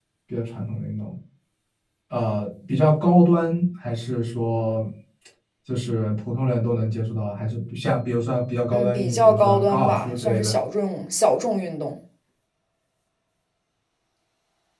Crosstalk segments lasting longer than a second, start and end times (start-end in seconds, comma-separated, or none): 8.7-10.5